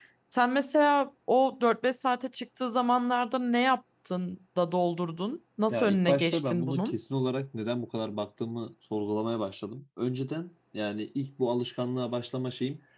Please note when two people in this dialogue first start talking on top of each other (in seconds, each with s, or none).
5.7 s